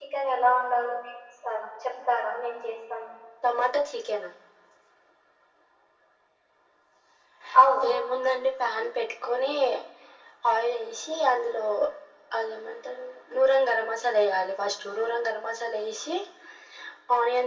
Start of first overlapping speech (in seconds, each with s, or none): none